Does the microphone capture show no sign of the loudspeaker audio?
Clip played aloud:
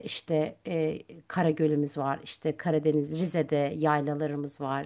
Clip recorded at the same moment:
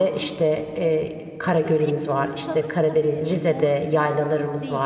No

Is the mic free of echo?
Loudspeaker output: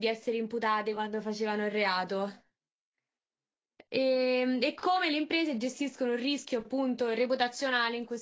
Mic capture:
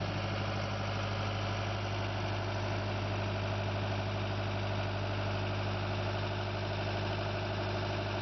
Yes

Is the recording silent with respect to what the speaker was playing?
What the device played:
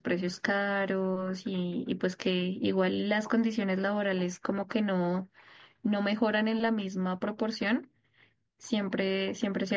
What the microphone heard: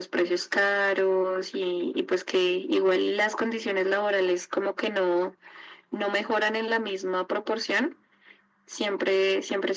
No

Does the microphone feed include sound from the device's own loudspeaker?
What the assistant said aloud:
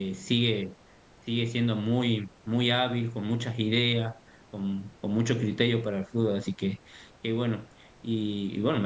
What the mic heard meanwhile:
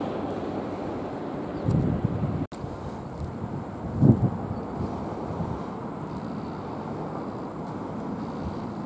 No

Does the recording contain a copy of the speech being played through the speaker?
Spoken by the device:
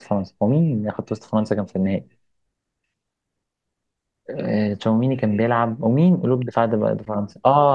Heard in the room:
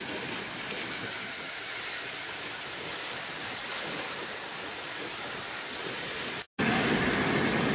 No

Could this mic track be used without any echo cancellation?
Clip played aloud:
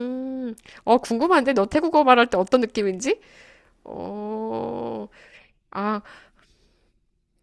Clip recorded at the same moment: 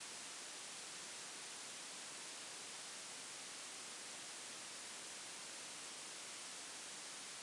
Yes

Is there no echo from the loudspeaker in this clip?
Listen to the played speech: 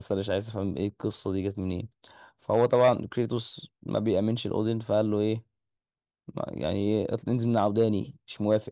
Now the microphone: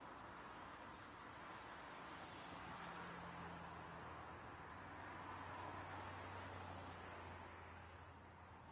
Yes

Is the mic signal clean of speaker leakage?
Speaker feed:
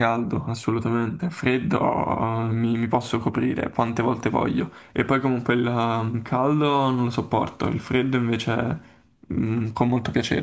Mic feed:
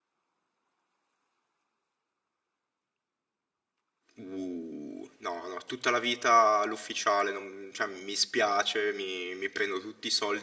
Yes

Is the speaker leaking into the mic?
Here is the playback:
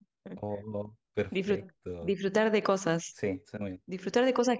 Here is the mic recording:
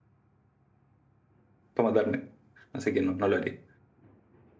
No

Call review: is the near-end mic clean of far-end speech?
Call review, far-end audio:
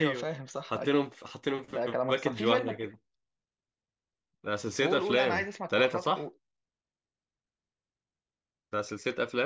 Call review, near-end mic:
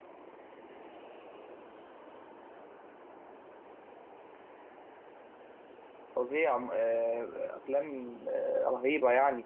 Yes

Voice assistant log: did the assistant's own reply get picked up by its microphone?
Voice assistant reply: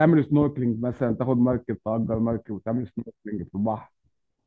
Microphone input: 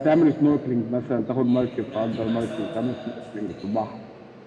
Yes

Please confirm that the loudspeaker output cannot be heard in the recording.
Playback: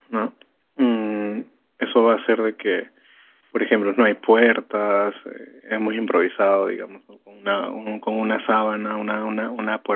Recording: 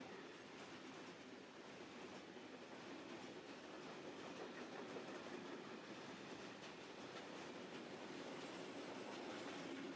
Yes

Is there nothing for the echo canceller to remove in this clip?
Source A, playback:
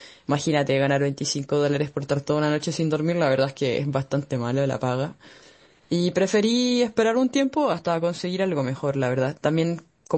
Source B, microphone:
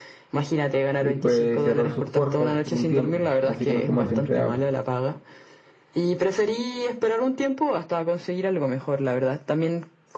No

